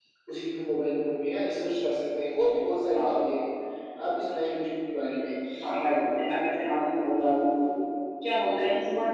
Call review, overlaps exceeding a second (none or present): none